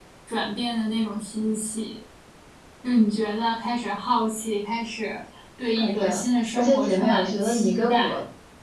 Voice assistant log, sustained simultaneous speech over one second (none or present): present